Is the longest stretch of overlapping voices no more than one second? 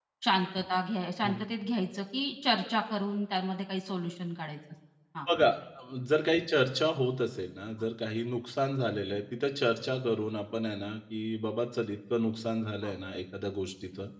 Yes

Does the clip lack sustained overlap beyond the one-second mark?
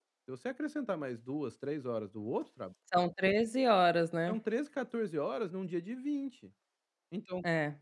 Yes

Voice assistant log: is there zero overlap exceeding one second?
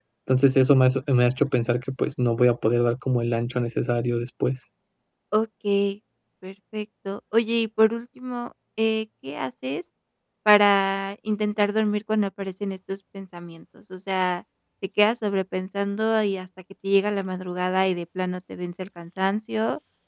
Yes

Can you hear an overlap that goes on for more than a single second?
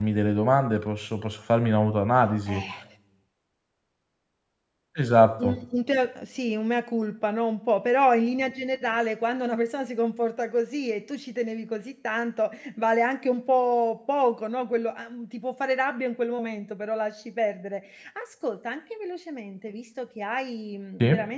No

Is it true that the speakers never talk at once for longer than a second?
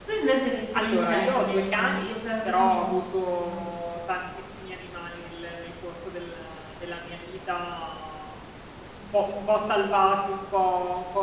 No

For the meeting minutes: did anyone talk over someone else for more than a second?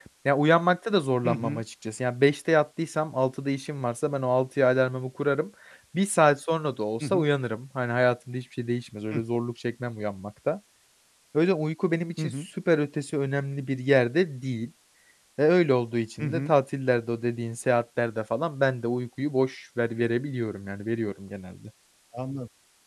No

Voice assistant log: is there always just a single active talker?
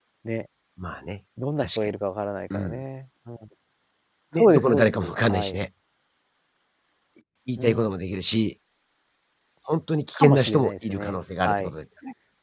No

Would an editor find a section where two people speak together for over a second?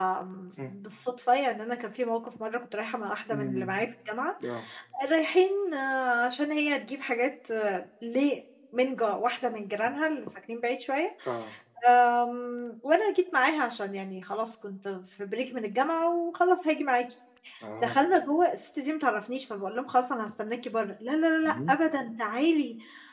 No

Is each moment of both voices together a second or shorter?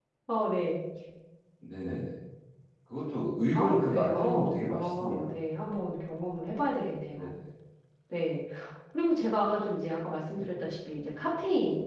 No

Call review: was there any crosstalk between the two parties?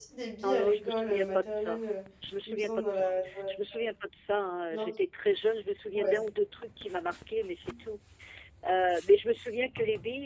Yes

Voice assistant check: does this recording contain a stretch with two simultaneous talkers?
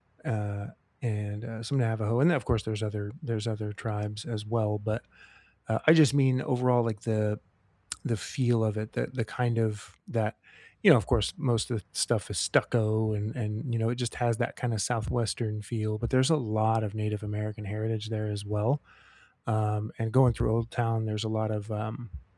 No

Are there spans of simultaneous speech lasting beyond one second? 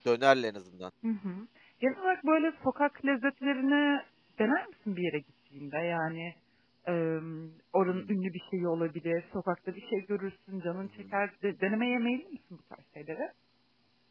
No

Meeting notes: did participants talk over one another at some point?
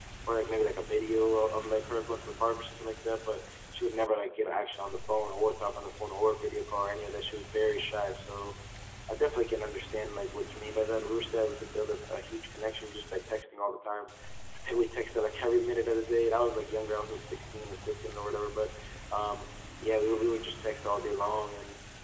No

